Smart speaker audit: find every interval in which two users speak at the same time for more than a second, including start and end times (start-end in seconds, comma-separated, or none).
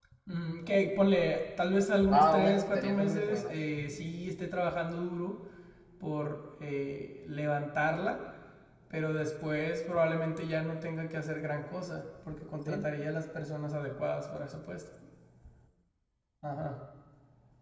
2.1-3.5